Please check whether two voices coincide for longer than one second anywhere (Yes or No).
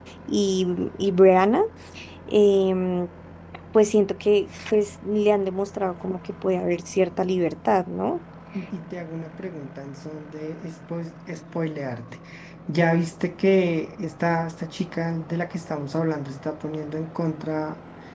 No